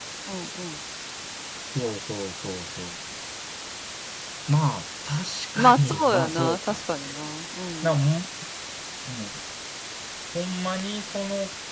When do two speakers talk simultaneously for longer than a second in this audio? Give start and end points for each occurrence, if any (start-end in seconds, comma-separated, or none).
5.7-7.2